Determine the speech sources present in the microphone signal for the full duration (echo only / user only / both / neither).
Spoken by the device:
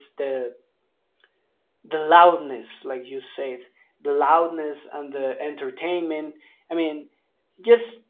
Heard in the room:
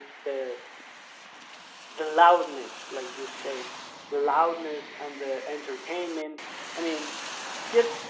echo only